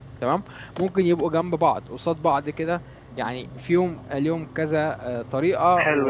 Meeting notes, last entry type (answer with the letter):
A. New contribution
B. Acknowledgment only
A